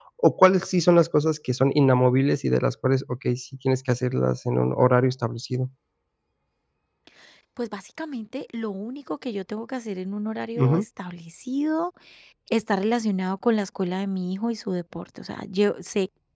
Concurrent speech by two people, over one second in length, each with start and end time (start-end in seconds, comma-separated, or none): none